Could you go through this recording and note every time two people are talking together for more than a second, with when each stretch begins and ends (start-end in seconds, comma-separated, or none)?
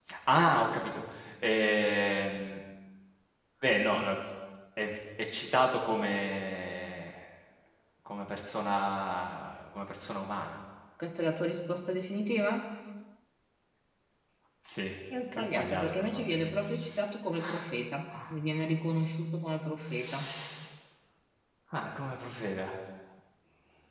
15.3-16.6